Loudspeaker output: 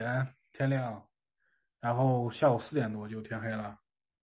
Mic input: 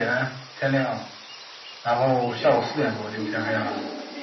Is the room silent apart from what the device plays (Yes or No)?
No